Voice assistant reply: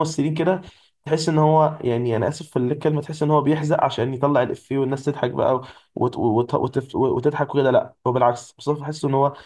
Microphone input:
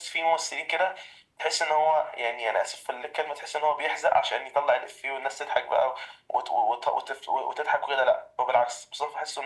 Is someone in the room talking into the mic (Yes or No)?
No